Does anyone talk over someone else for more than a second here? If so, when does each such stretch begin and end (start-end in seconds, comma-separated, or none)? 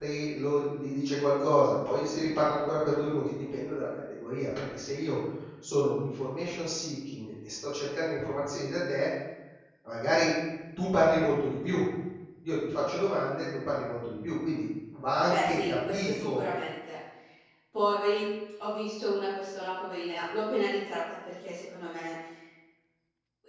15.2-16.4